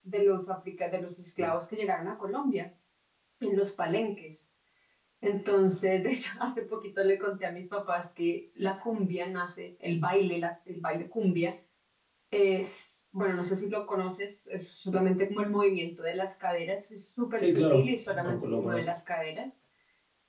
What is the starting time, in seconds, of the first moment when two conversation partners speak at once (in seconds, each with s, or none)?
17.4 s